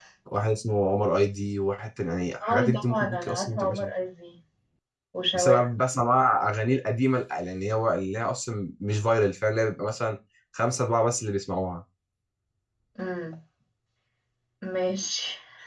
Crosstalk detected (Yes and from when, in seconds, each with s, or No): Yes, from 2.4 s